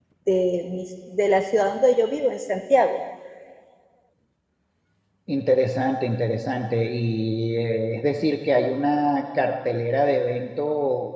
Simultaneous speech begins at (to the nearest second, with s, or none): none